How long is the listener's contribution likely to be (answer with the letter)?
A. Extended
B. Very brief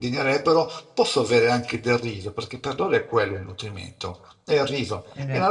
B